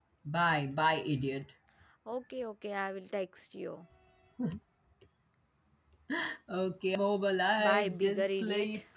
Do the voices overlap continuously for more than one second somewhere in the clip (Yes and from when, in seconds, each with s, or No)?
Yes, from 7.6 s